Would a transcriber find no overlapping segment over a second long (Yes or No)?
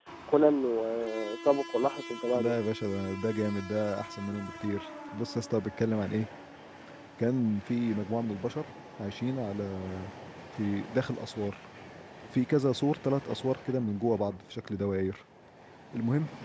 Yes